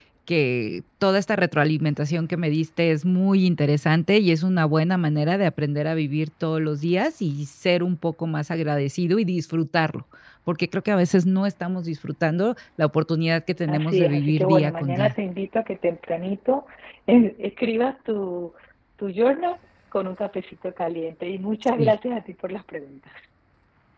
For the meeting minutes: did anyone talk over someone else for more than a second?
Yes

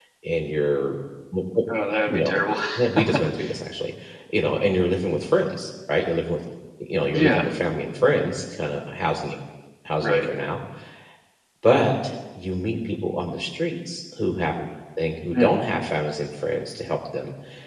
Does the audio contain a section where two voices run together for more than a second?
No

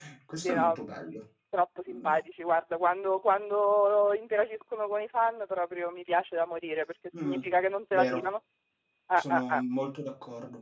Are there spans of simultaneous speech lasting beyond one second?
No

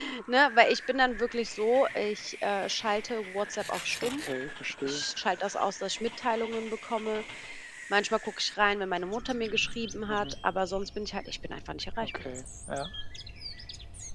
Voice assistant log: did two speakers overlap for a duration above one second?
No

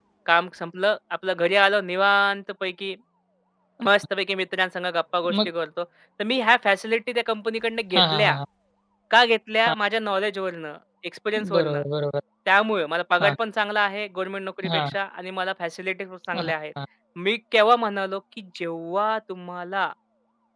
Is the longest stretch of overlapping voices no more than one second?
Yes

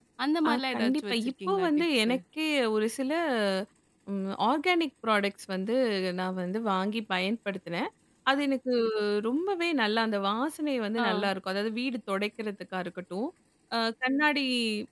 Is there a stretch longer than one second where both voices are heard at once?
Yes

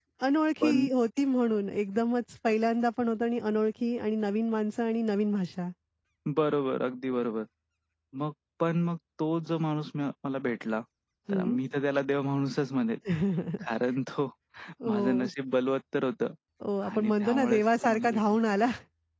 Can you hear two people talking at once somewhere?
Yes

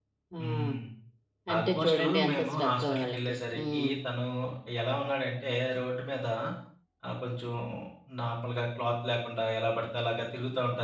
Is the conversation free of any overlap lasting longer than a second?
No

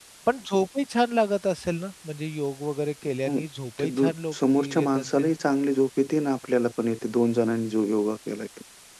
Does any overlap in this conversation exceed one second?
Yes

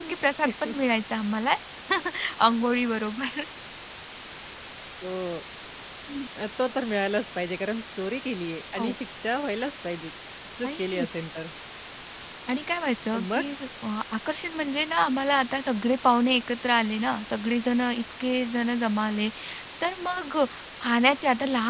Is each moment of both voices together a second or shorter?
Yes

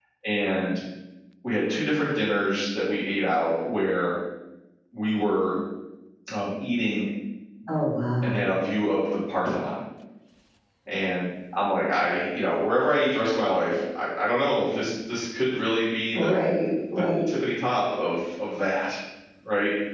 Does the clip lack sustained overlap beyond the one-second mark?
Yes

